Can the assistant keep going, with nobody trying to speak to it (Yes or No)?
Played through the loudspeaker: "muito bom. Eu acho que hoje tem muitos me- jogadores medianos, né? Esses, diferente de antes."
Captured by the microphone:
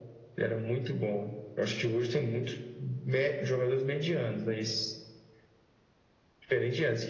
Yes